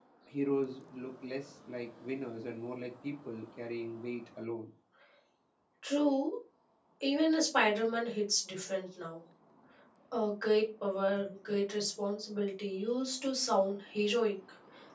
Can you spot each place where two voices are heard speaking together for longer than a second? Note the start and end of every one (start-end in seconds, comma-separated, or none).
none